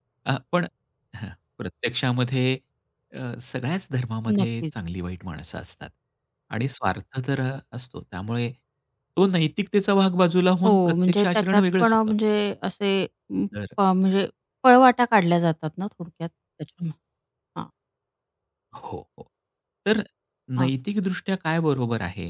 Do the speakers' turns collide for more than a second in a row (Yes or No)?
Yes